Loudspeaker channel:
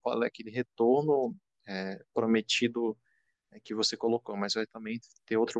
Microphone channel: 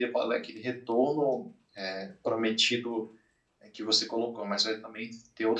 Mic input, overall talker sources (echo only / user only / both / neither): echo only